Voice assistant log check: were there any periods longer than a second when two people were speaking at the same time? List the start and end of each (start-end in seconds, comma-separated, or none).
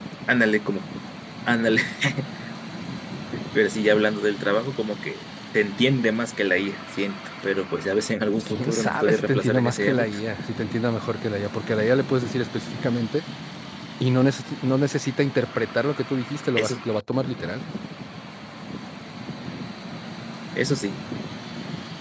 8.5-10.2